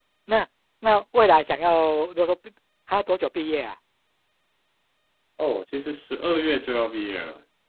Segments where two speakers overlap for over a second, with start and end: none

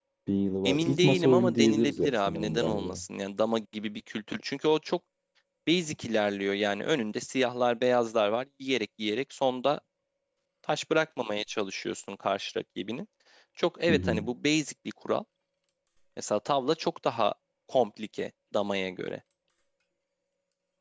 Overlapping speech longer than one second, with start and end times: 0.7-3.0

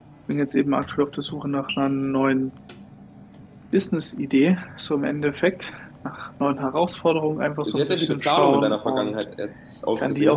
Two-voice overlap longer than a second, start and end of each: 7.7-9.1

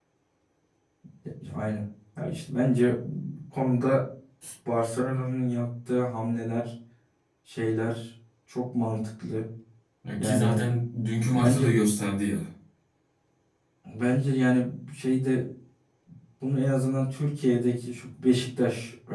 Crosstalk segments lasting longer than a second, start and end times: none

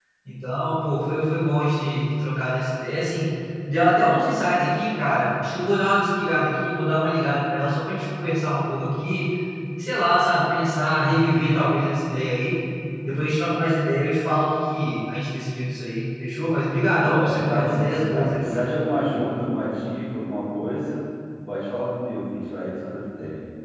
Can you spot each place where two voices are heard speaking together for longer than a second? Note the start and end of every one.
17.0-18.6

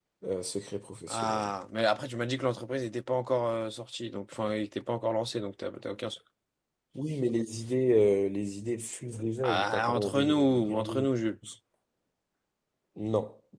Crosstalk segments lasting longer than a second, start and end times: 9.4-11.1

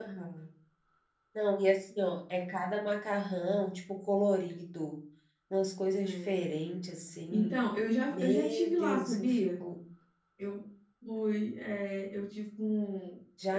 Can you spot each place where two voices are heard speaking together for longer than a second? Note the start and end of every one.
8.1-9.5

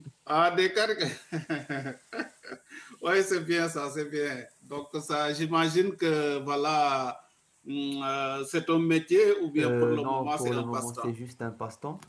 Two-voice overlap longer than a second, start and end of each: 9.6-11.1

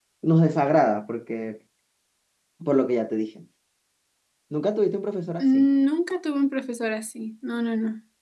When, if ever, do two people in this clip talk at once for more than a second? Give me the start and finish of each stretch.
none

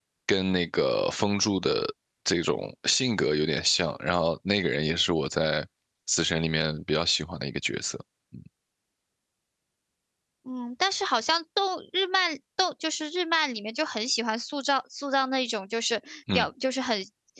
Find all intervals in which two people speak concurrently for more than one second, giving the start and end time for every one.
none

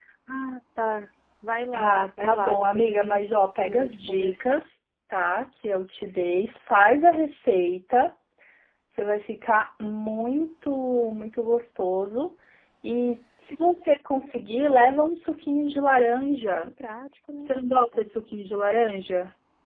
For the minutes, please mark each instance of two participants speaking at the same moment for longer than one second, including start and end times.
1.7-4.6

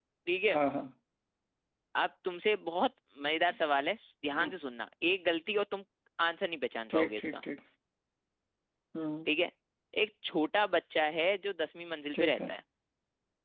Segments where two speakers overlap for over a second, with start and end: none

